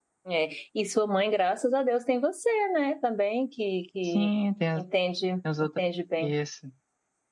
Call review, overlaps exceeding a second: none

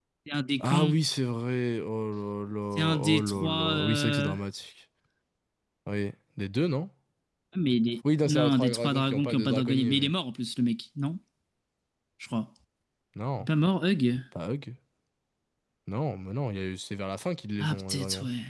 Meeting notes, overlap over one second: present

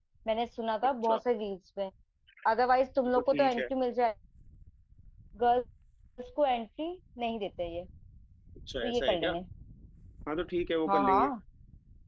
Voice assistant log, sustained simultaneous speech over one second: none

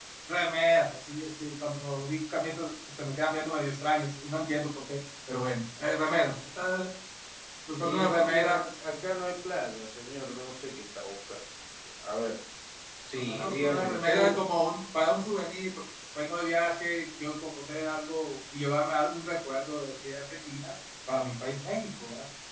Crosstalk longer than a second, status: present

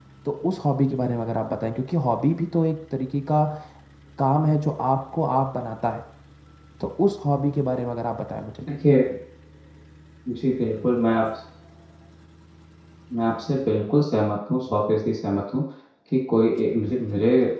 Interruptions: none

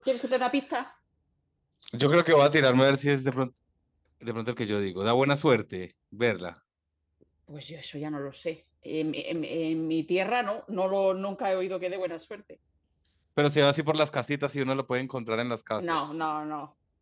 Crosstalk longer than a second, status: none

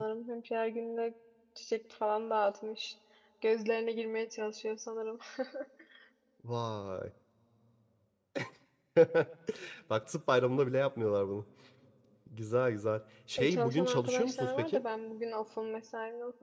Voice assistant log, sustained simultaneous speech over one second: present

